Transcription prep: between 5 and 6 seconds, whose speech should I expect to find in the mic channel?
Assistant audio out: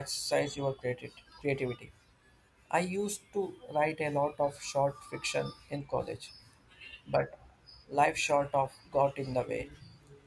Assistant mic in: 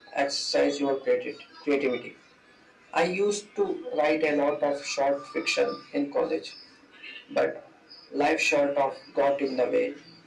echo only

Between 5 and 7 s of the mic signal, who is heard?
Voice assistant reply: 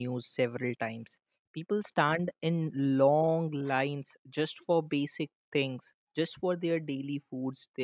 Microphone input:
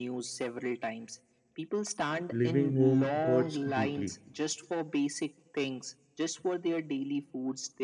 echo only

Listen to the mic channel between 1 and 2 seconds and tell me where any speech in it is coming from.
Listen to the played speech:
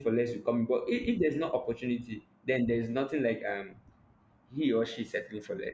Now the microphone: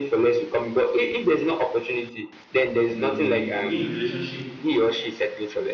echo only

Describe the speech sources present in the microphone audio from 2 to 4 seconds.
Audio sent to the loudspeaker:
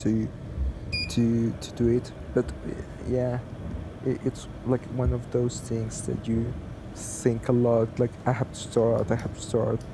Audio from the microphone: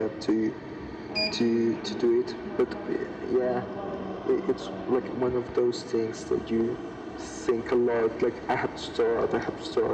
both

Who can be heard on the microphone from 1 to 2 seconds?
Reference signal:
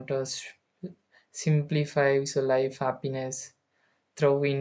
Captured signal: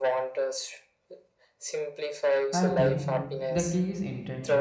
echo only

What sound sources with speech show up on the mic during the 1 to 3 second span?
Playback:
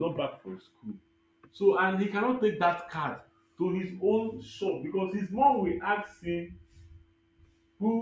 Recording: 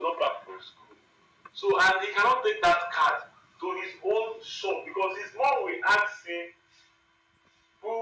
echo only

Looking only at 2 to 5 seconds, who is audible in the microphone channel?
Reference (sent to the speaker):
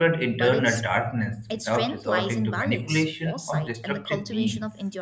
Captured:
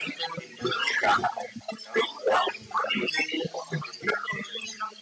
echo only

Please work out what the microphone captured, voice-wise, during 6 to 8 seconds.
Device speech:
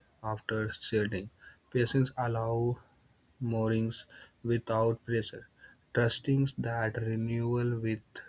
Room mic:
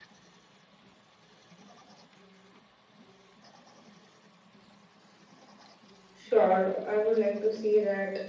user only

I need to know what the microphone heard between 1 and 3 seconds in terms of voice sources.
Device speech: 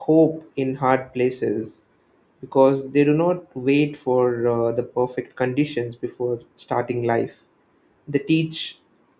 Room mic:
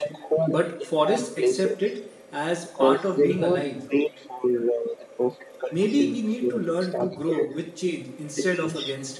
both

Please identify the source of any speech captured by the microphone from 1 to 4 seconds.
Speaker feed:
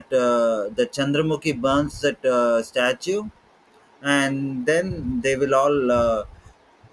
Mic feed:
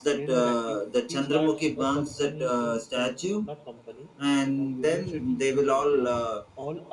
both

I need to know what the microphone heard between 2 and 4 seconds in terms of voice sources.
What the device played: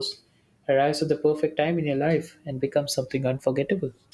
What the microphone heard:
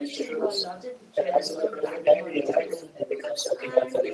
both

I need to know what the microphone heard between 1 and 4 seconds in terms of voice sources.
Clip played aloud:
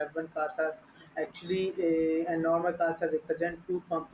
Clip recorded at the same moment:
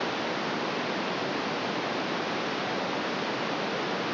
neither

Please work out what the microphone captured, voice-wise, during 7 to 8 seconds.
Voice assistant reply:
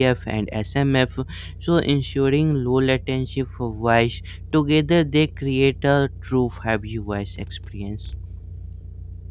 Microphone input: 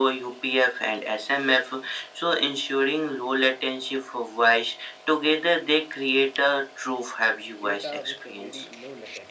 both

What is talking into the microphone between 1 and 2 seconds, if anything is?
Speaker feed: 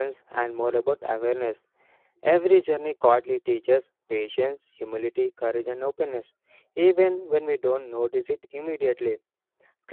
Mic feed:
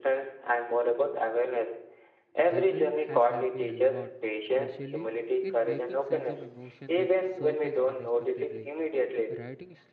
echo only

